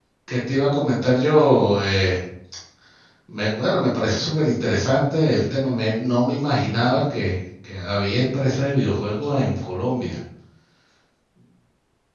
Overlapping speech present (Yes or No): No